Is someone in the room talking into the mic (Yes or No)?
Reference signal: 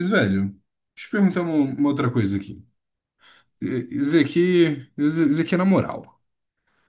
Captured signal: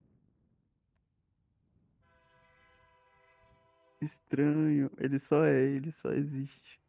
Yes